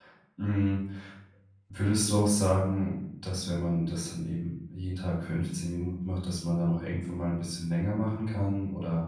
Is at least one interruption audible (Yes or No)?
No